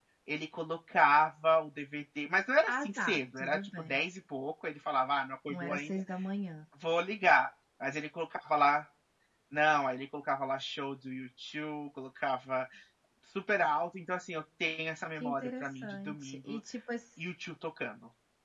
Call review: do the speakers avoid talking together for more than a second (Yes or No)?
No